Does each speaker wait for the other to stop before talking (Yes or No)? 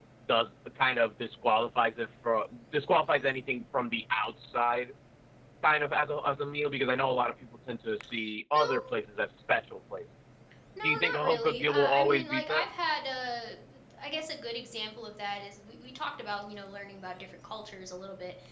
No